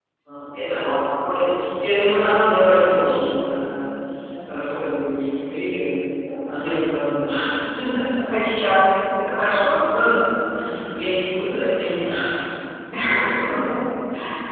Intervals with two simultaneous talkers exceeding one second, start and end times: 2.0-3.2

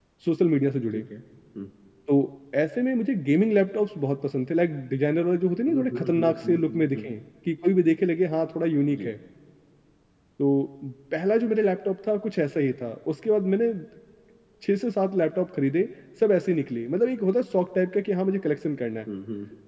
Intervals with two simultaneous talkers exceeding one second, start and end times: 5.7-7.1

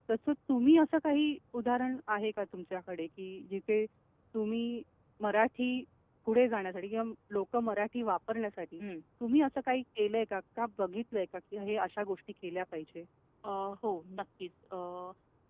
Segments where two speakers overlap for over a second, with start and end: none

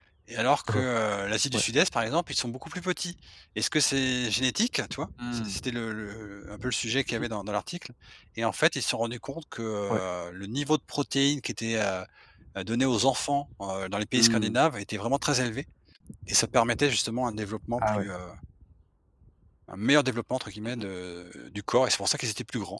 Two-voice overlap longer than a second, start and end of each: none

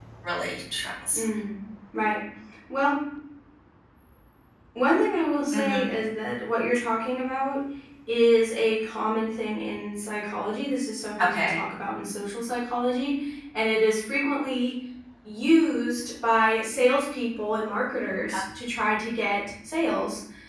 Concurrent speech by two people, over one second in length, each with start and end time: none

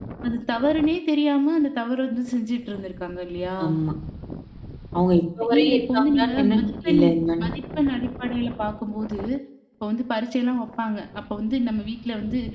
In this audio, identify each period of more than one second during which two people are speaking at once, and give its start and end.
5.6-7.0

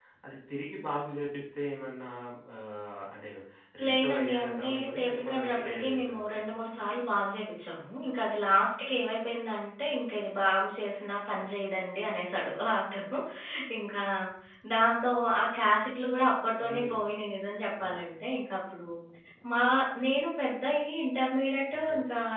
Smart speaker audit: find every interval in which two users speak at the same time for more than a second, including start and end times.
3.9-6.5

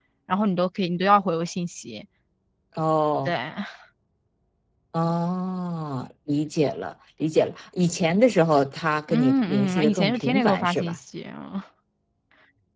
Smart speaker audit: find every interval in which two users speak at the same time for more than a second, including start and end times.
9.1-11.0

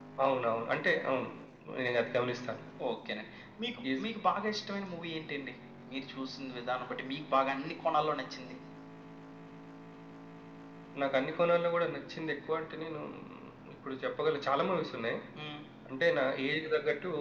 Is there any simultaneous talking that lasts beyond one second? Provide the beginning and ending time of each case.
none

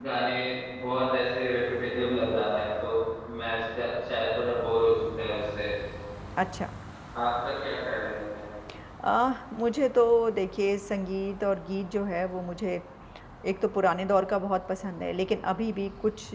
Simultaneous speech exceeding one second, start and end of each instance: none

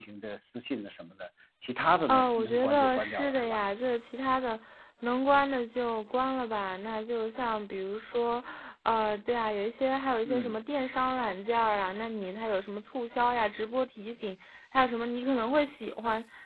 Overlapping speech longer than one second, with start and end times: 2.1-3.6

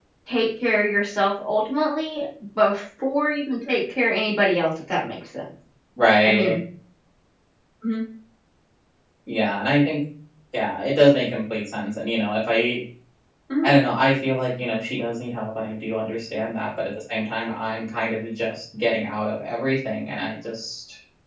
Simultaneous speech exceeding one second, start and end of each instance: none

